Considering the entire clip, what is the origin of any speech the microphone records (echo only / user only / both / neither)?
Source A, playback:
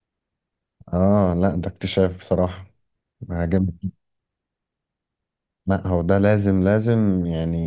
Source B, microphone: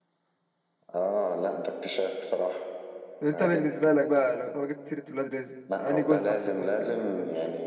both